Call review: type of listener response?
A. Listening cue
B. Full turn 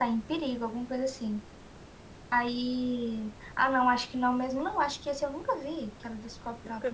B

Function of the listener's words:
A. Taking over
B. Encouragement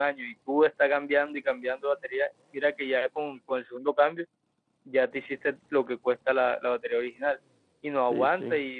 B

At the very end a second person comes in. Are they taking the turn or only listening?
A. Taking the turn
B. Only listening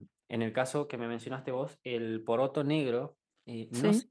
B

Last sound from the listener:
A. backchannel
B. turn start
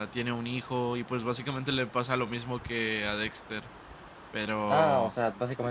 B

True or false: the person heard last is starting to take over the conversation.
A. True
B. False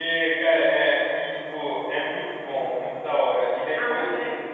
B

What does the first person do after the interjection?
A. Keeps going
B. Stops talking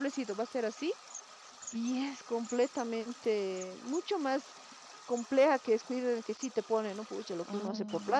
A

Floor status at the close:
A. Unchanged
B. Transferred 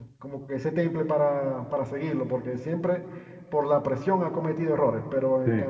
A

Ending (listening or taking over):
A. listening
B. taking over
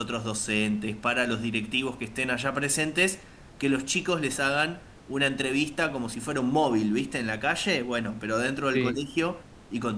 A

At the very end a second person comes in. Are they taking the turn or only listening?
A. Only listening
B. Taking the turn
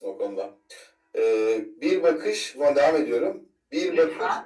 A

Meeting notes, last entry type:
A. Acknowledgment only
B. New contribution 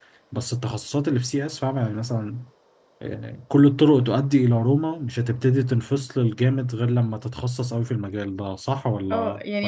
B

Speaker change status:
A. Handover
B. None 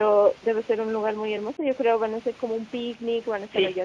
A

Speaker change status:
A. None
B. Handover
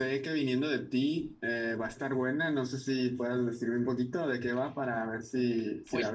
B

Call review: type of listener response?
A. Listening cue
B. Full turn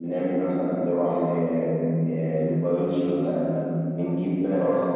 A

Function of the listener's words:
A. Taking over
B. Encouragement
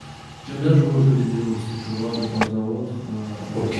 A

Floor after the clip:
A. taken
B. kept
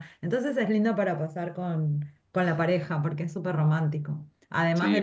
A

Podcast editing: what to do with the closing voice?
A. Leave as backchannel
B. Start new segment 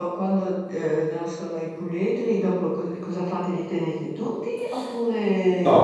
B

